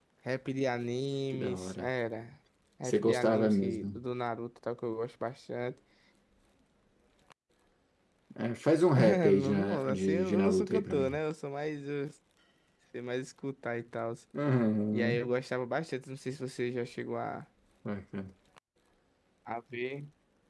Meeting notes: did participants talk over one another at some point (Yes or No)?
Yes